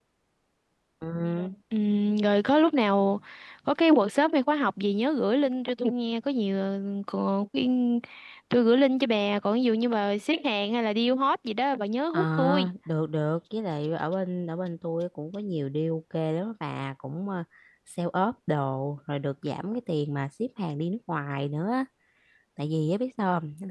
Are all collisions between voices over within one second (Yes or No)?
Yes